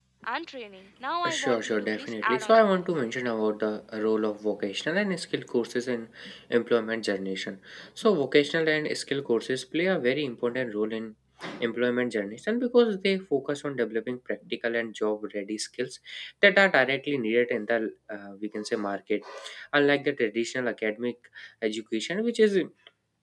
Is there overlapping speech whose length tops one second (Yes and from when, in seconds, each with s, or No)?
Yes, from 1.3 s